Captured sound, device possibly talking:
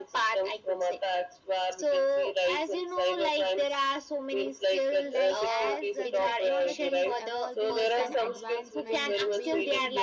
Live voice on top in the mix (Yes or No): No